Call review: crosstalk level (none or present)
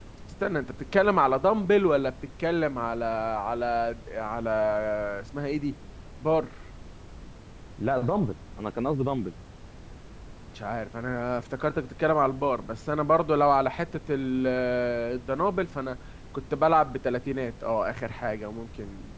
none